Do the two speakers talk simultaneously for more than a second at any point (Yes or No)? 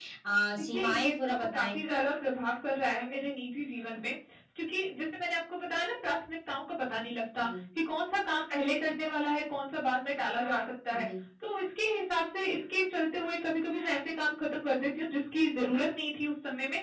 Yes